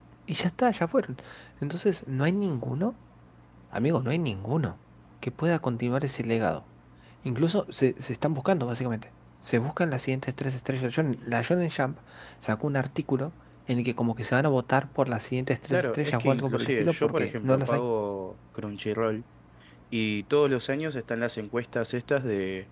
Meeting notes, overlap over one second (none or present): present